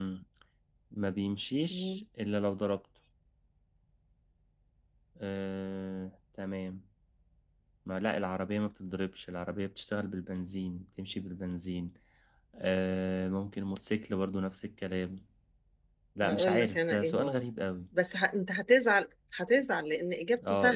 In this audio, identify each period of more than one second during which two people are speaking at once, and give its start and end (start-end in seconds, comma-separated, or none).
16.2-17.4